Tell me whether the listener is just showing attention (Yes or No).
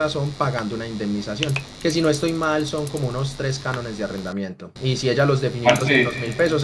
Yes